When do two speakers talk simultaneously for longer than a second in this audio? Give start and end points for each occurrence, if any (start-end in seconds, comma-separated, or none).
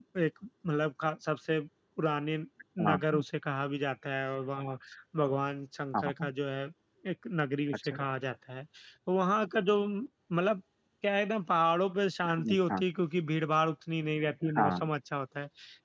none